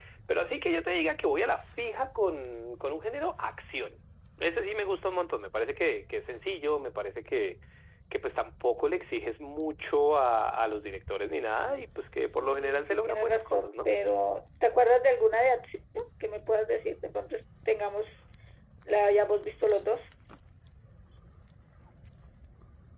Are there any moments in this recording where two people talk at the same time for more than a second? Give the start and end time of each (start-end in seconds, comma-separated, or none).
12.4-13.9